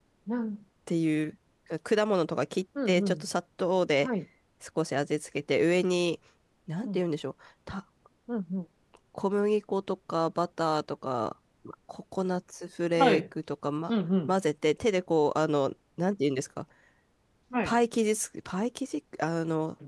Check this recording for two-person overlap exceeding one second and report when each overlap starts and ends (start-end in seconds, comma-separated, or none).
none